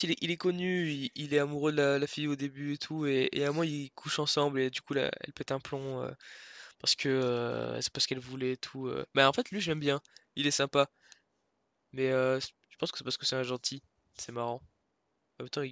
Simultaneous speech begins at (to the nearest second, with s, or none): none